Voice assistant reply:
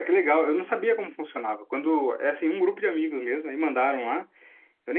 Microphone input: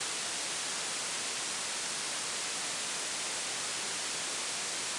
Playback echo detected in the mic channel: No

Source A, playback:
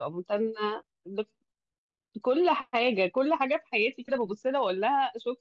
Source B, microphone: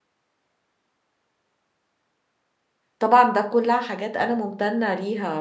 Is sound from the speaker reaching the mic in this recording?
No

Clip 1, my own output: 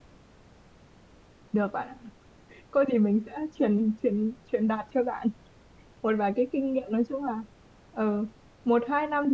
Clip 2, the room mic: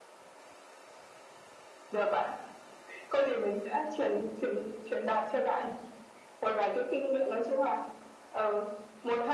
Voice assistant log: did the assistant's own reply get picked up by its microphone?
Yes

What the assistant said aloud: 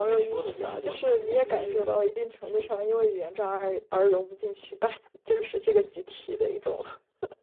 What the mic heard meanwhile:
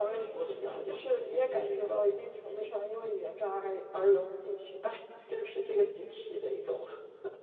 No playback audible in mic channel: No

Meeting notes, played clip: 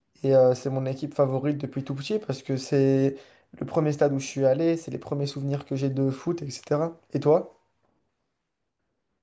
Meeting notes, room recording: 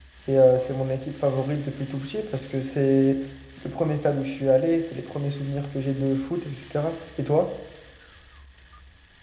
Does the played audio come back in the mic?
Yes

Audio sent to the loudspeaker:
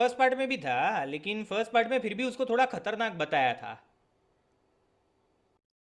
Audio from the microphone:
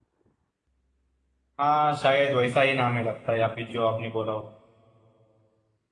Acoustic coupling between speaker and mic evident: No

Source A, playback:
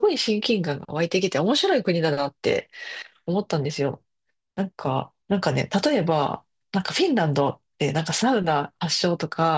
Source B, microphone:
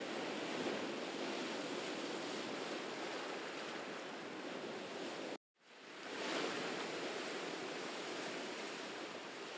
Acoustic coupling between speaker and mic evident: No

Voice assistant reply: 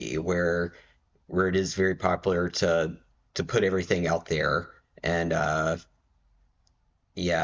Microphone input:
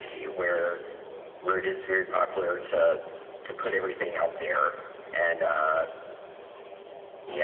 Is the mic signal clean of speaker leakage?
No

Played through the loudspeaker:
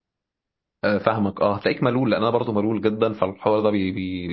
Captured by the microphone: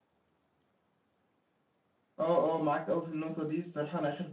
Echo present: No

